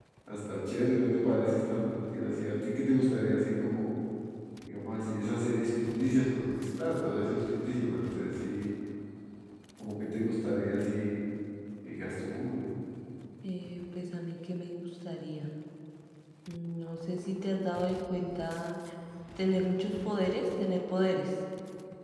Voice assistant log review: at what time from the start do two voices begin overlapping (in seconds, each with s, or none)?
none